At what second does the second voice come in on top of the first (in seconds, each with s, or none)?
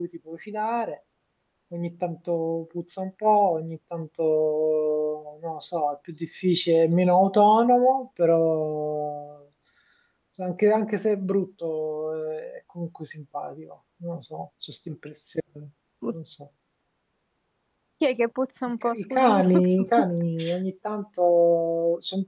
18.8 s